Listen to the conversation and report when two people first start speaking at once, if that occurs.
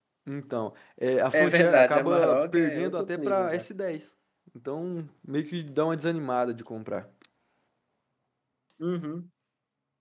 1.3 s

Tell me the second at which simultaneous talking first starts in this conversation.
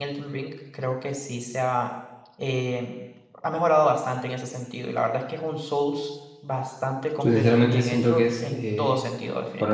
7.2 s

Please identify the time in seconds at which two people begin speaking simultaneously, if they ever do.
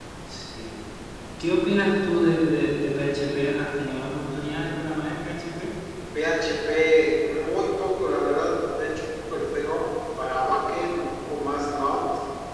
none

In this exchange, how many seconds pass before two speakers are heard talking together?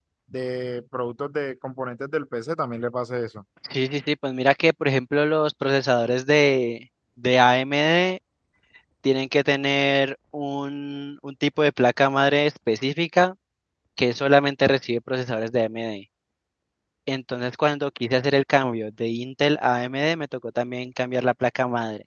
none

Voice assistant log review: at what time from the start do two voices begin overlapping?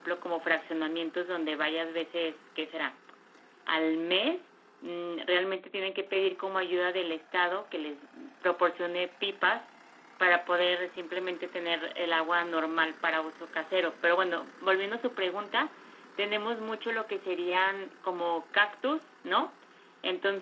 none

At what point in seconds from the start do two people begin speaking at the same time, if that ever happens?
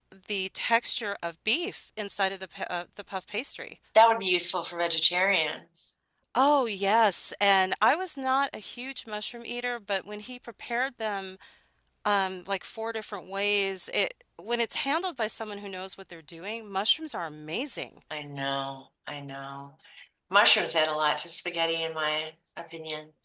none

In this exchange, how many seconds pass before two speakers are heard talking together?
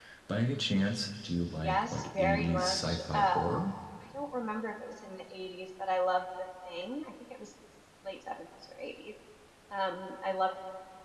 1.5 s

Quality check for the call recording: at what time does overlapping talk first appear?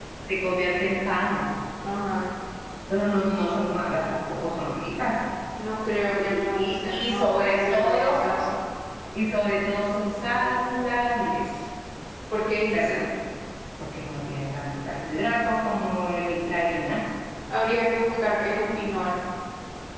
6.2 s

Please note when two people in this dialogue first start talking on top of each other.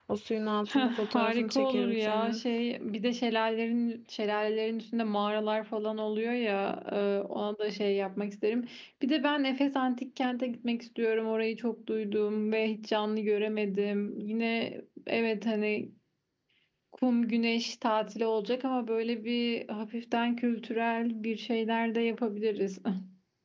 0.7 s

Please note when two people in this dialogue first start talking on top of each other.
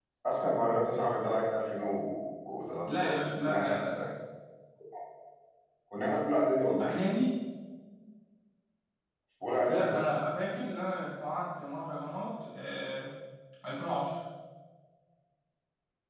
2.9 s

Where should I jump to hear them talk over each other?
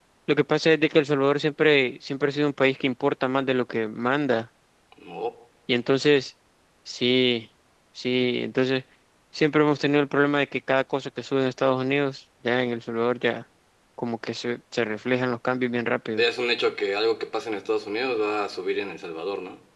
none

